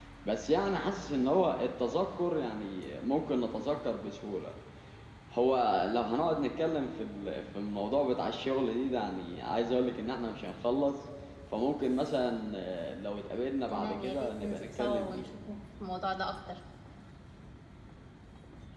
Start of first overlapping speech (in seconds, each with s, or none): 13.7 s